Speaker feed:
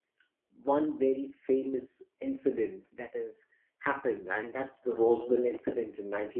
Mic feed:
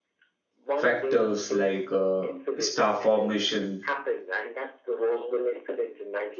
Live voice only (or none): factors like uh, star formation,